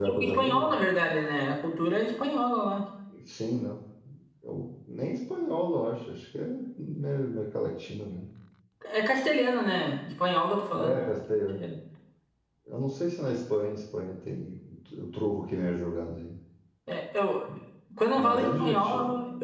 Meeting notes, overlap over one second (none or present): present